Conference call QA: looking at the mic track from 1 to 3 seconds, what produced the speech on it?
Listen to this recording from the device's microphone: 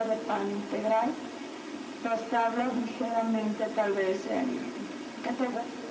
echo only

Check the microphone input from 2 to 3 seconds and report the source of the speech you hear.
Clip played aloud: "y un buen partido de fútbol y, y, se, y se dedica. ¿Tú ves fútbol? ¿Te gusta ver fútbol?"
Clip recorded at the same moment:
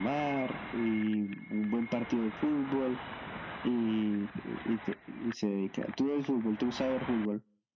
echo only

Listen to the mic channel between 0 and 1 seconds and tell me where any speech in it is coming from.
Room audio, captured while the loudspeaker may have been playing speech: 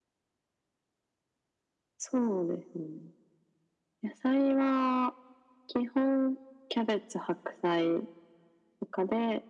neither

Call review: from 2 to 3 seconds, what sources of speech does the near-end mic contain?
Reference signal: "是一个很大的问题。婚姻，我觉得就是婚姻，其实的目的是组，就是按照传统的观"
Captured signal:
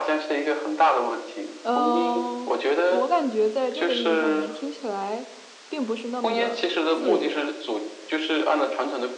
both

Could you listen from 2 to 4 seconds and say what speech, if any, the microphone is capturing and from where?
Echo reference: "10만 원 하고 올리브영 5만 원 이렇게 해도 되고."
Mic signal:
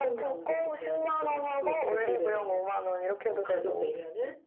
both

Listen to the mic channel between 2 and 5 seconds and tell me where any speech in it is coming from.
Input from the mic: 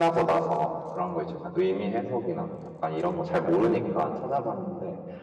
user only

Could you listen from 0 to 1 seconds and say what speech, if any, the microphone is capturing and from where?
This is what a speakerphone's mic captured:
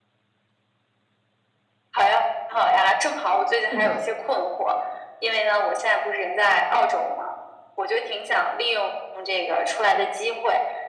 neither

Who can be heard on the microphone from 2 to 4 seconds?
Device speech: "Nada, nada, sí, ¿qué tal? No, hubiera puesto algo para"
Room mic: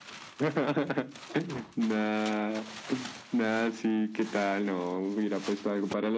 echo only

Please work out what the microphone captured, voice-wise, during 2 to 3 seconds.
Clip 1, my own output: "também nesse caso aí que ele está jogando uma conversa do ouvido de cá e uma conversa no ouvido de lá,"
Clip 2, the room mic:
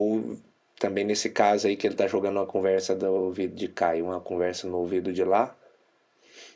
echo only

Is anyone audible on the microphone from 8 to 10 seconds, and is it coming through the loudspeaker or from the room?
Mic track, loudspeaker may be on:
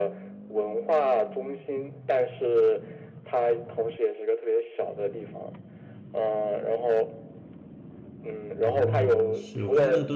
both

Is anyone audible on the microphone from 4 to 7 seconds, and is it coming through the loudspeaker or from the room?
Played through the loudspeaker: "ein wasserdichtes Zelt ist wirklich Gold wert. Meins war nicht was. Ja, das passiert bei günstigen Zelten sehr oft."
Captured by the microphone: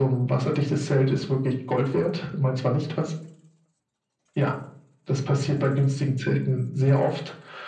echo only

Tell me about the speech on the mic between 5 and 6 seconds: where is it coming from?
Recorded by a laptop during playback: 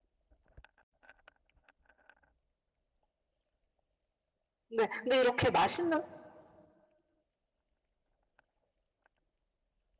user only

